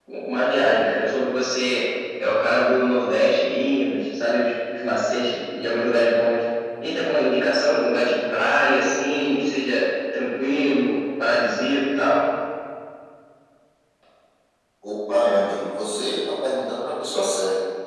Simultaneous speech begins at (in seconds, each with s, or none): none